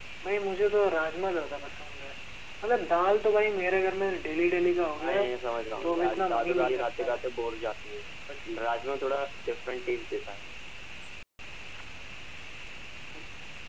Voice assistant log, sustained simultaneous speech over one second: present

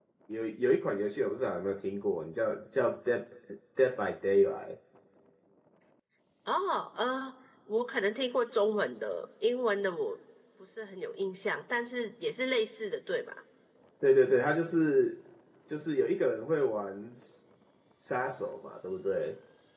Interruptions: none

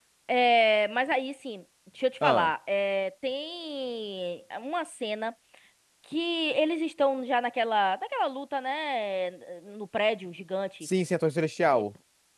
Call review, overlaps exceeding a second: none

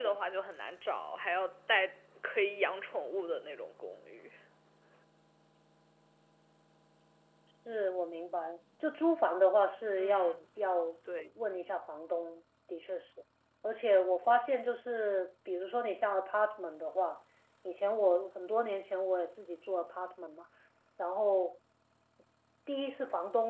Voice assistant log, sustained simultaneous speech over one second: none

